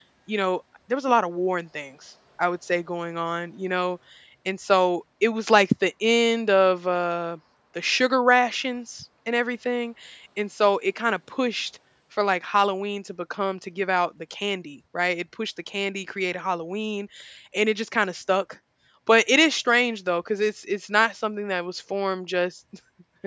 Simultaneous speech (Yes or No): No